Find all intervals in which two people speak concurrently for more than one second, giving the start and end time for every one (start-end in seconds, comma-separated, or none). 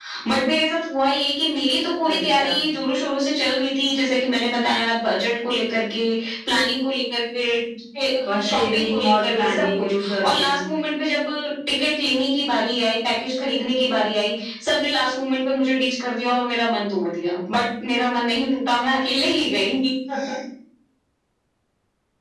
8.5-10.6